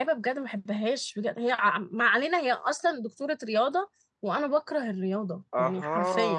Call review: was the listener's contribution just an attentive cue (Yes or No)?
No